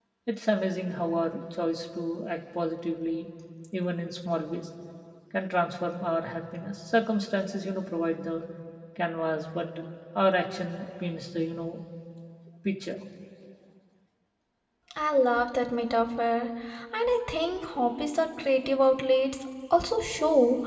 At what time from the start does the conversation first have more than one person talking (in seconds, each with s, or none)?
none